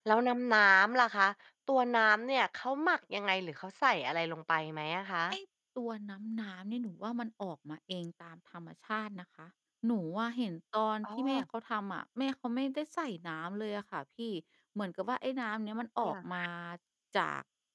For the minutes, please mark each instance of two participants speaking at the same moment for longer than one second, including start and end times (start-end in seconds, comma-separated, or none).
none